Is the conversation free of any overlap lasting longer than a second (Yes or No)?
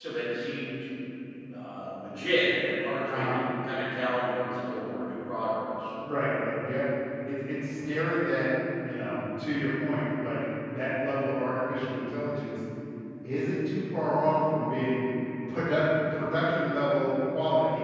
Yes